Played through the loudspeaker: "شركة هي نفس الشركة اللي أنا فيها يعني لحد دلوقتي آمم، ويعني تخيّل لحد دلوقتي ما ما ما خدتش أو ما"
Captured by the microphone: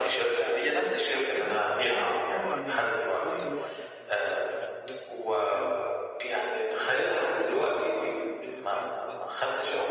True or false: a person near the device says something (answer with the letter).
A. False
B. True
B